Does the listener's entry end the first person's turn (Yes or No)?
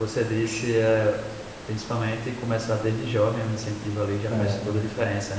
No